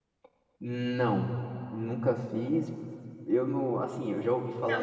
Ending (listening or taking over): taking over